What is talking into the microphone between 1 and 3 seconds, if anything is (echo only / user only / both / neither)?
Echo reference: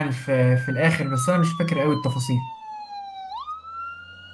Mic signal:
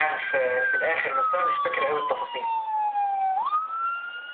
echo only